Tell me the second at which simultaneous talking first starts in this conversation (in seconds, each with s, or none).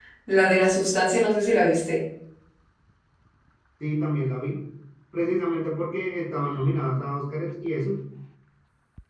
none